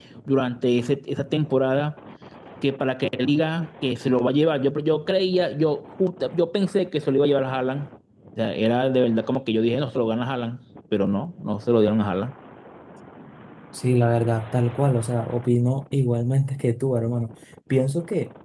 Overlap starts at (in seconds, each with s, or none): none